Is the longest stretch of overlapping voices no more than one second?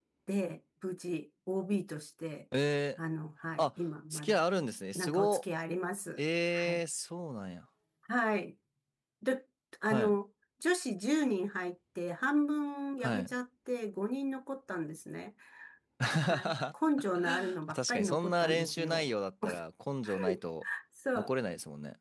No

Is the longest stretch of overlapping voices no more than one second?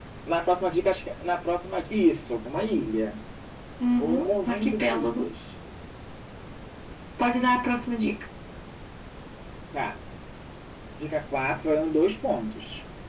No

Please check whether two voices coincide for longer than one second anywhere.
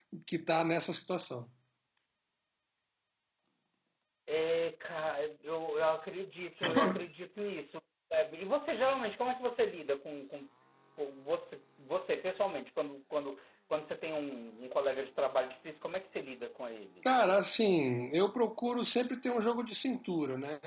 No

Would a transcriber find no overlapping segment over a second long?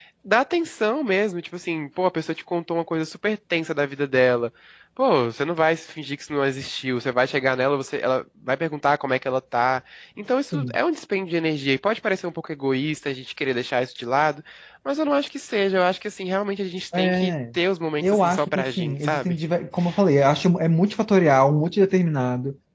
No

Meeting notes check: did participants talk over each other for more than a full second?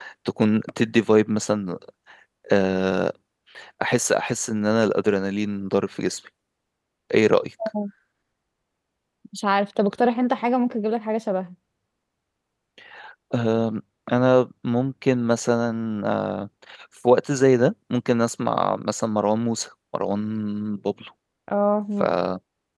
No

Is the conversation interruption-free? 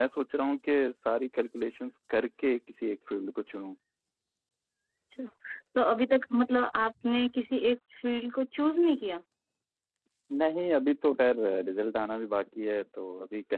Yes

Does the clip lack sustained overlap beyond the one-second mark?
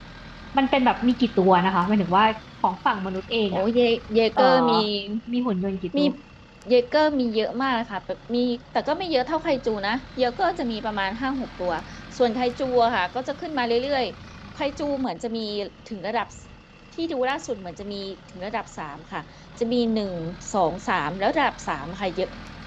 Yes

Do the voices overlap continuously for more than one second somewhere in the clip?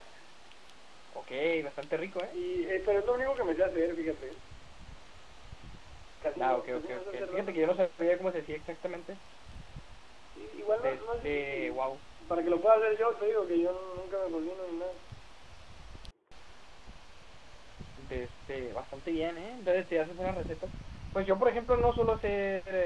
Yes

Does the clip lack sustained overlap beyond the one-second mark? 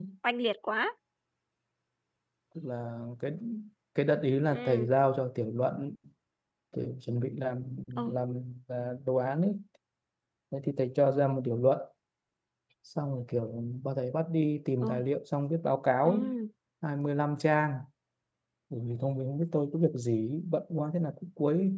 Yes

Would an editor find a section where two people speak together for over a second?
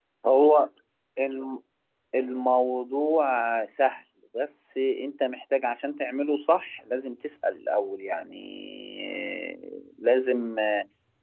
No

